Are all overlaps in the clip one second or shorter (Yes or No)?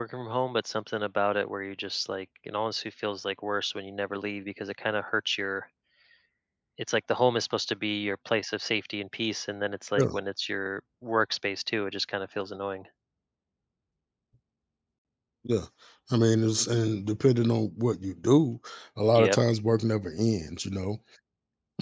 Yes